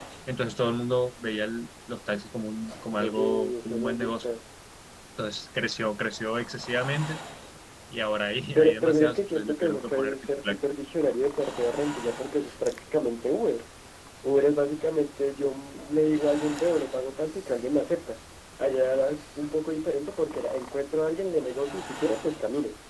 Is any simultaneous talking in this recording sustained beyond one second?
Yes, from 3.0 s

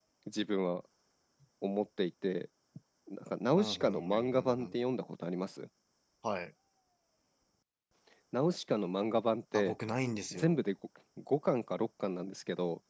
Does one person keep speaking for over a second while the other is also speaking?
Yes, from 3.5 s

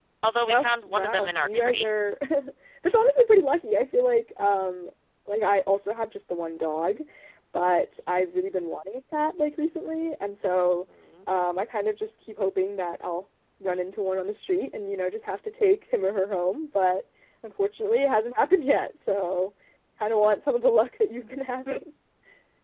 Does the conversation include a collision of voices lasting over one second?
Yes, from 0.5 s

